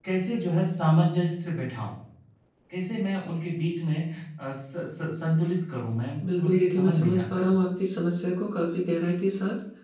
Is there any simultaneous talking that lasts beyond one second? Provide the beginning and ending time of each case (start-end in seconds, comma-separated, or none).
6.2-7.5